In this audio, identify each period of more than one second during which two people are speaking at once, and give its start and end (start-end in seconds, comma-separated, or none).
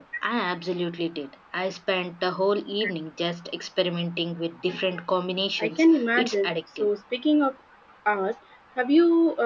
5.6-6.9